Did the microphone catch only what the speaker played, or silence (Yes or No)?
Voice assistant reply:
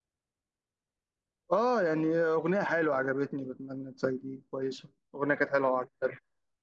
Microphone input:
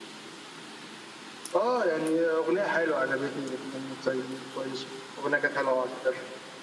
Yes